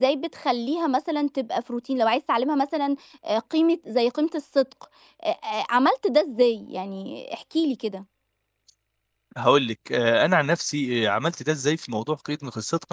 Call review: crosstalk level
none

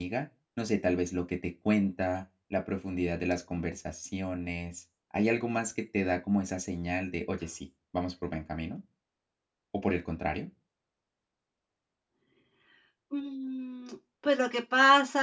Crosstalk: none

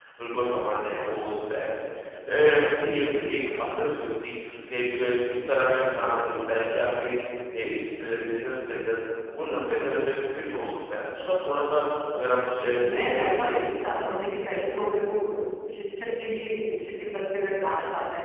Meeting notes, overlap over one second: present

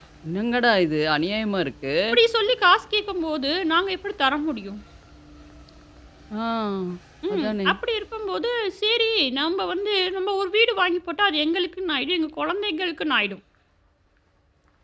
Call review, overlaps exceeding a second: none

